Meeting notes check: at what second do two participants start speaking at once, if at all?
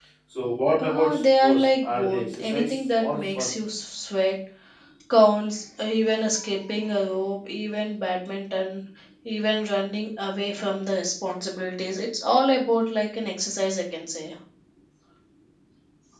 0.8 s

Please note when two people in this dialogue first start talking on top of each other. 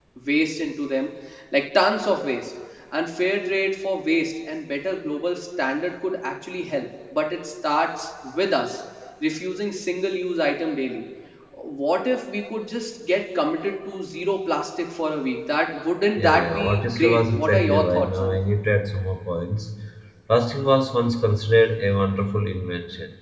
16.2 s

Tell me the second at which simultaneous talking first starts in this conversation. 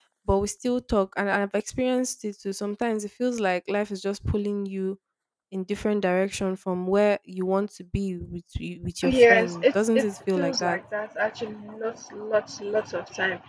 9.3 s

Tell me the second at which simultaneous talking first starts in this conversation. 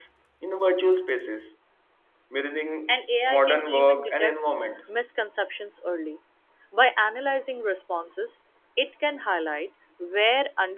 2.9 s

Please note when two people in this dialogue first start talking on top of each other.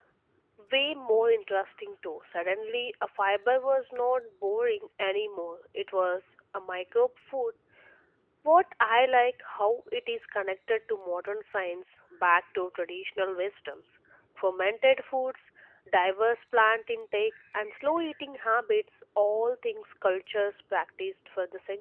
none

